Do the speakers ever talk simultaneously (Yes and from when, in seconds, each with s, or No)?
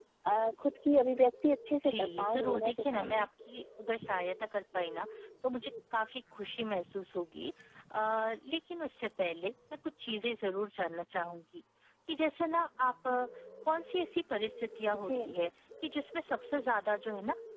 Yes, from 1.8 s